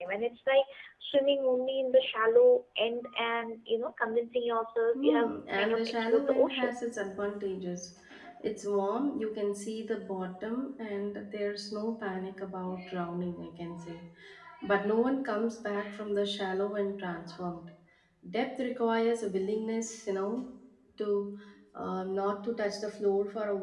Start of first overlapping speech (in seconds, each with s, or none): 4.9 s